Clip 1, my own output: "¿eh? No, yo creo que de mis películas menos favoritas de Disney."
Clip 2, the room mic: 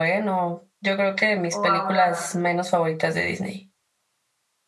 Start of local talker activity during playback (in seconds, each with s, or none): 1.5 s